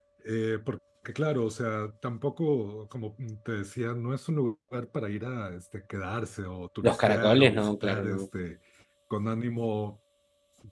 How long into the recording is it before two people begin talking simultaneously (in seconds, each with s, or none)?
6.8 s